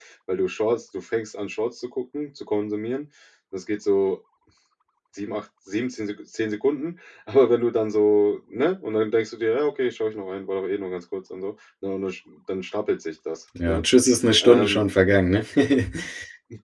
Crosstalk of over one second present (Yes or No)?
No